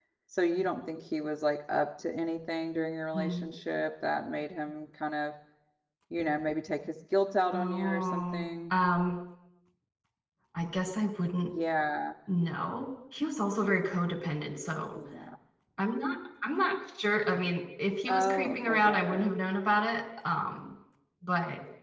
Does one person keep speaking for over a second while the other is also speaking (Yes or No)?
Yes